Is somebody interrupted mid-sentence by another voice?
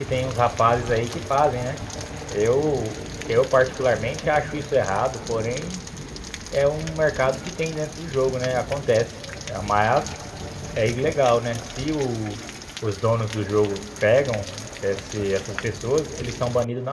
No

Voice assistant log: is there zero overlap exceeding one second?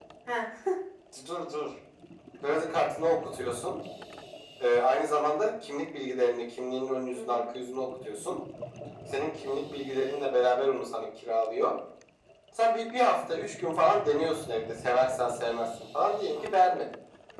Yes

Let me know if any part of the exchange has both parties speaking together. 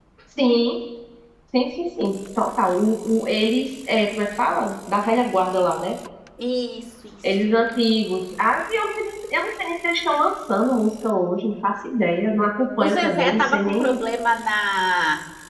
Yes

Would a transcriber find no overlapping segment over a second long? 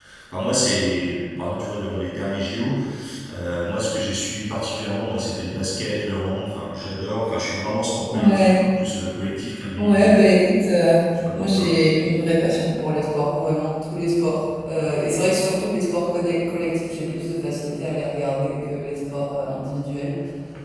Yes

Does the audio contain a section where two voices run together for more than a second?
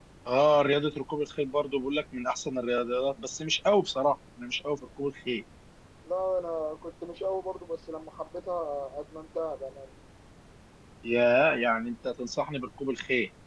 No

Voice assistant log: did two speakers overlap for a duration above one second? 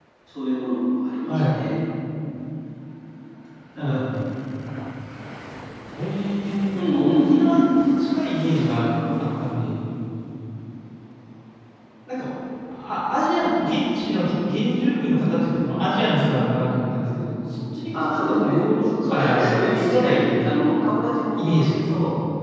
Yes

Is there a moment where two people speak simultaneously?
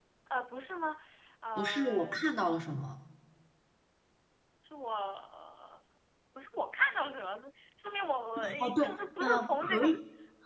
Yes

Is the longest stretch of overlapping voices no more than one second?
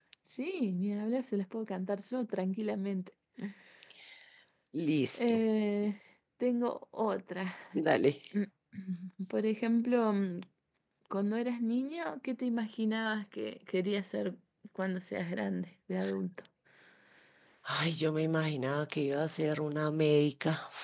Yes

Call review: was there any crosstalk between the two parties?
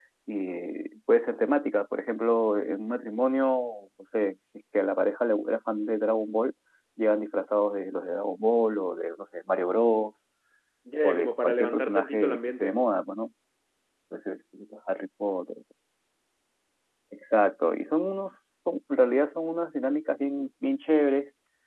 Yes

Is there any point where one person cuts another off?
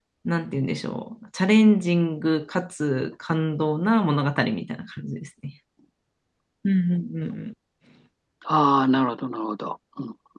No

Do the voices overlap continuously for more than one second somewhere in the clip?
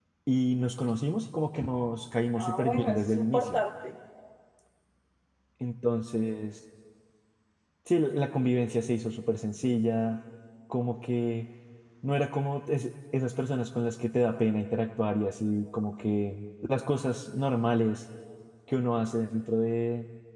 Yes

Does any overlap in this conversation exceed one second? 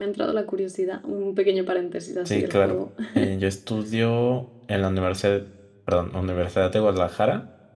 No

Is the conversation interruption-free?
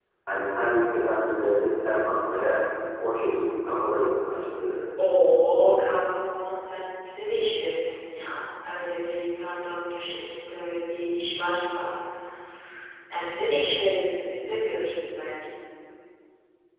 Yes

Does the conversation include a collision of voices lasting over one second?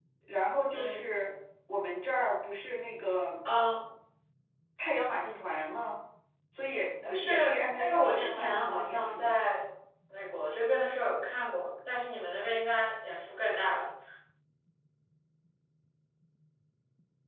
Yes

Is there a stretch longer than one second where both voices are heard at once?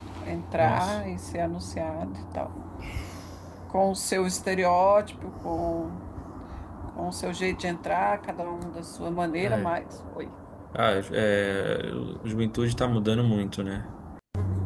No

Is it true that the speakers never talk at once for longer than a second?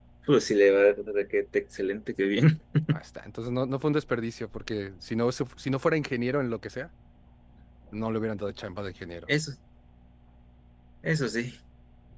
Yes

